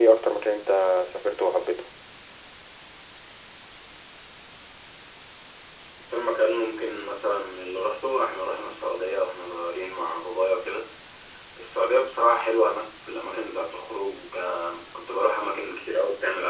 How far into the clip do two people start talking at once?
none

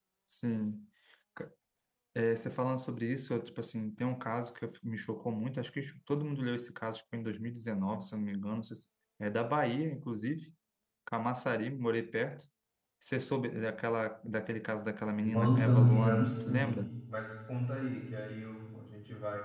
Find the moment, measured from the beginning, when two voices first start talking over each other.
15.2 s

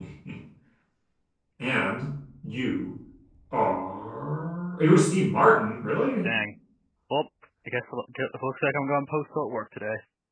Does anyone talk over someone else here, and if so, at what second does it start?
none

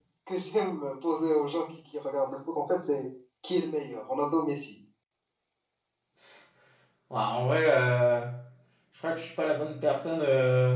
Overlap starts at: none

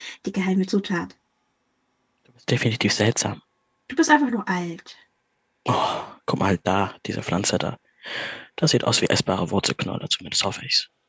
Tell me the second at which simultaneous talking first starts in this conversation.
none

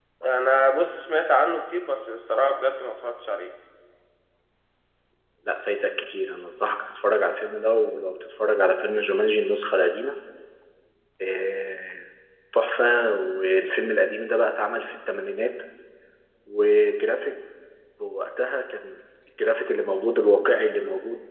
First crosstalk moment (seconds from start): none

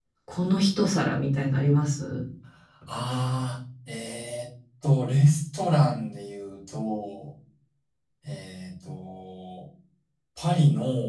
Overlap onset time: none

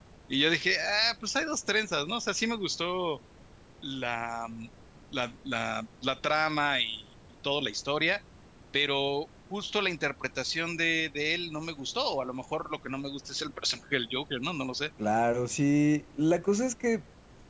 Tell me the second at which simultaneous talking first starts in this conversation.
none

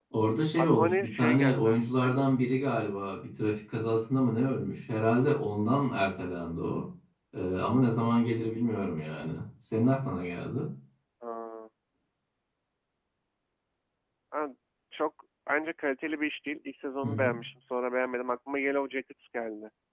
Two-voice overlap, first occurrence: 0.6 s

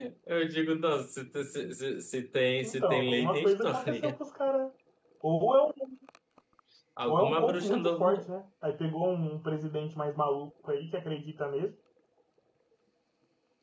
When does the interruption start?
2.6 s

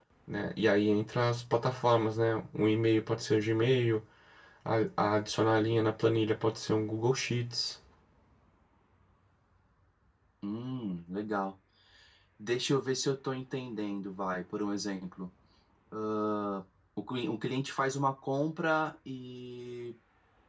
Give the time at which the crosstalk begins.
none

